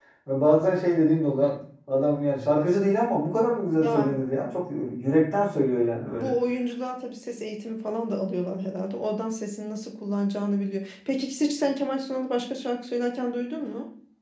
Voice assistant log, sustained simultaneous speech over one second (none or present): none